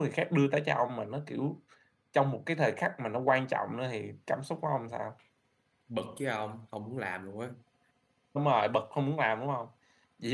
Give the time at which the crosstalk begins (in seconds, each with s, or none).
none